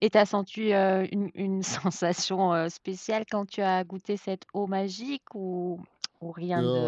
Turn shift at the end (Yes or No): Yes